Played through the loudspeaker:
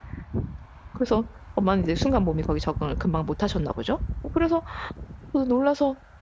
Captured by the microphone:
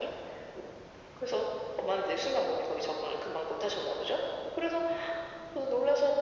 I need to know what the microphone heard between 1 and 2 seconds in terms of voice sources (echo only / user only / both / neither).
echo only